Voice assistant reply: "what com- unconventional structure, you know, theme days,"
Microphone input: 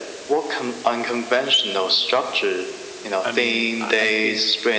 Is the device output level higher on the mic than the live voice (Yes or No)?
Yes